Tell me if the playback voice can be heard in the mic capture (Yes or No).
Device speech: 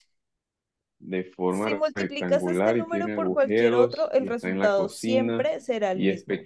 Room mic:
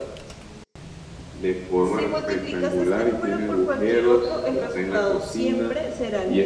Yes